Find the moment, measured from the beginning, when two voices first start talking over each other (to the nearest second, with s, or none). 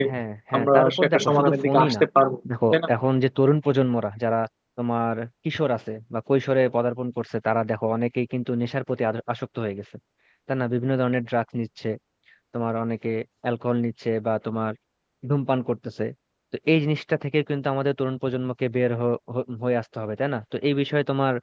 1 s